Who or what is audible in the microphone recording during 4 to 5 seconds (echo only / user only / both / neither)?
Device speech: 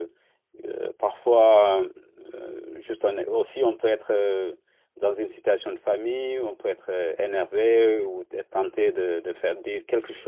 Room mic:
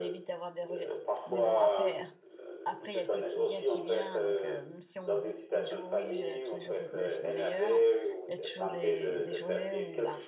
both